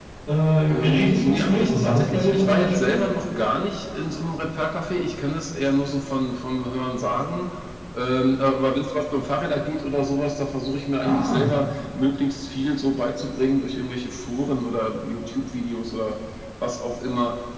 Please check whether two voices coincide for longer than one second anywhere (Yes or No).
Yes